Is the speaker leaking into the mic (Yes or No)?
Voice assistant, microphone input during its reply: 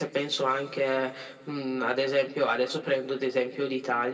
Yes